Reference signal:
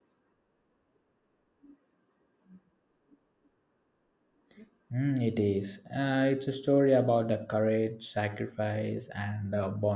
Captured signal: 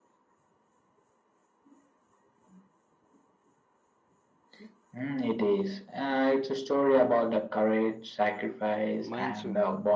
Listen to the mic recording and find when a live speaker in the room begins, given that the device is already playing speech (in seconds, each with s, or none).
9.0 s